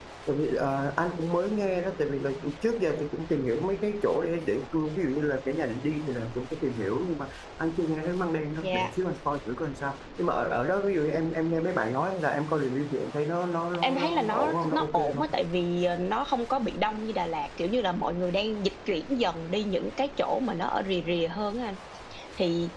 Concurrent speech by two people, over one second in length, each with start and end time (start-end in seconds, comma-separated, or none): 13.8-15.2